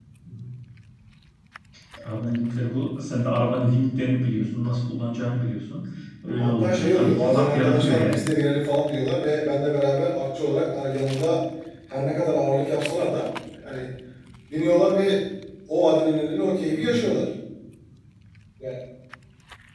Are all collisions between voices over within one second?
No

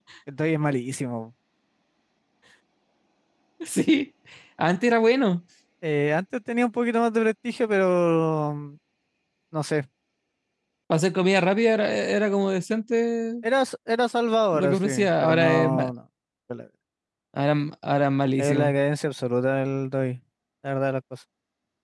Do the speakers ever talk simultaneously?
Yes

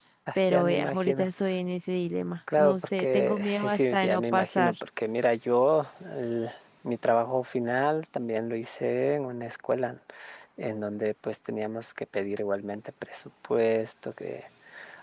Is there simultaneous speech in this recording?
Yes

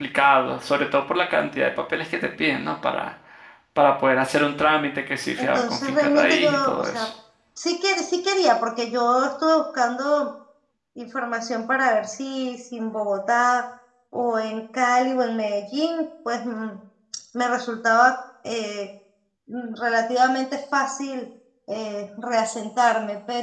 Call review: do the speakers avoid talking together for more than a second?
No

